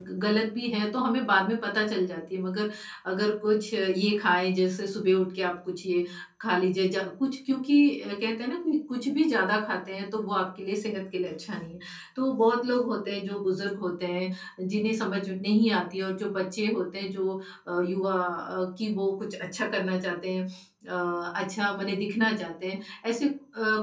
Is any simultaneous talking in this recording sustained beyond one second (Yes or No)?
No